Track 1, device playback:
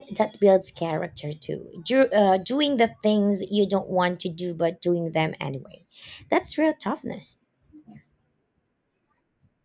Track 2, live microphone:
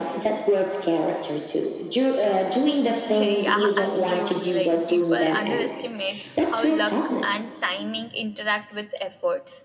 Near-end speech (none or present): present